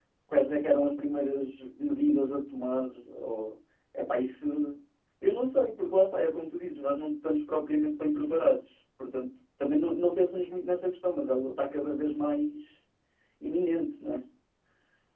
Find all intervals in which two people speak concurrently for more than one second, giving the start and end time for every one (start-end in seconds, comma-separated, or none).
none